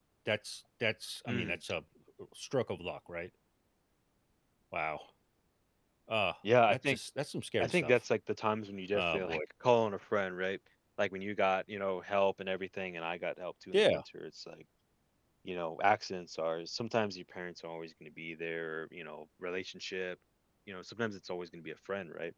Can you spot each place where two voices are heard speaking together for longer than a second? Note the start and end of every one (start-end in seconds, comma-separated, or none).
none